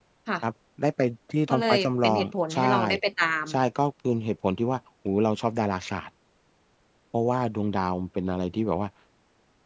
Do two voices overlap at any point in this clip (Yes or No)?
Yes